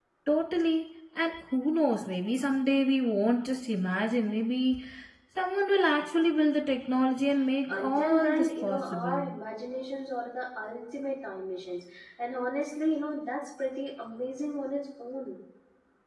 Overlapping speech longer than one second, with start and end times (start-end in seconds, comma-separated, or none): 7.7-9.3